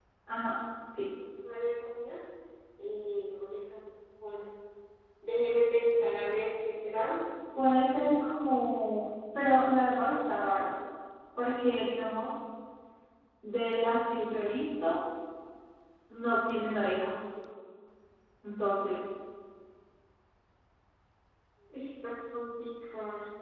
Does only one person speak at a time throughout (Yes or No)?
Yes